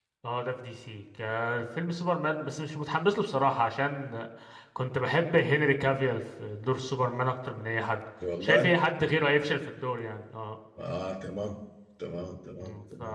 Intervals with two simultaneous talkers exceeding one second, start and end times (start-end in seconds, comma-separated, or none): none